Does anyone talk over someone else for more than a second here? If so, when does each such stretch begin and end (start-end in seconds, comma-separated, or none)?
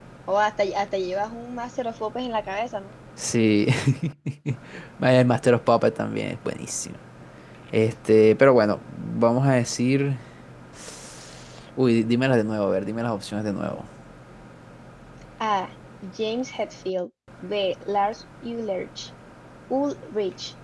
none